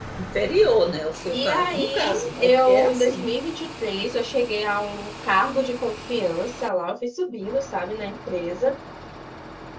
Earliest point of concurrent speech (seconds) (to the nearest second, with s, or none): 1 s